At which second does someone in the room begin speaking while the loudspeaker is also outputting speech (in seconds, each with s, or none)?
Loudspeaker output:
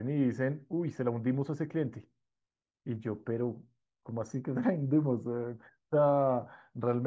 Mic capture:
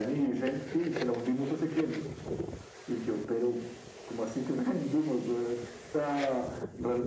none